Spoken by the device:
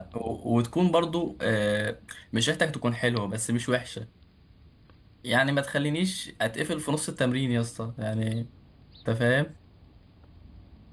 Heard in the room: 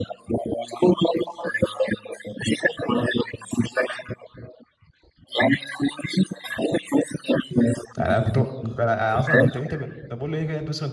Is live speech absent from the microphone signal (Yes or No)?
No